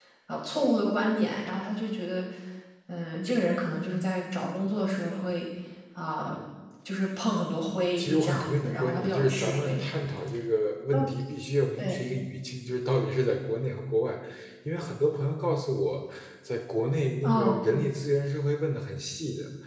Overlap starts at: 8.0 s

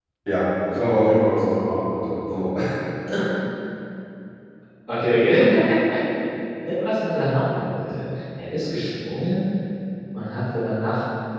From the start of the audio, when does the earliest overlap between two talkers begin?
none

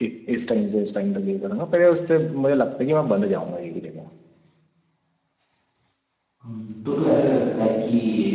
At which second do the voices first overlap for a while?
none

